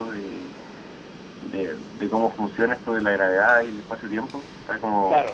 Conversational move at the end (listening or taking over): listening